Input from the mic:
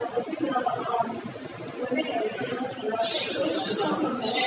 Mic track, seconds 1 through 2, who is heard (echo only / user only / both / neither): echo only